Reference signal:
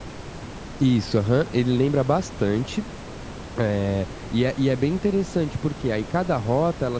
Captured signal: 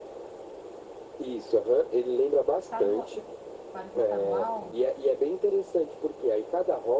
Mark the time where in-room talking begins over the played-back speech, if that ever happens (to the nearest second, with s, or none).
3 s